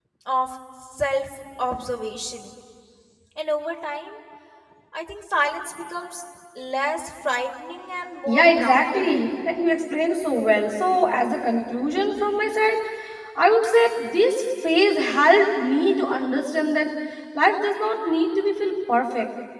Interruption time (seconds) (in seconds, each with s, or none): 8.2 s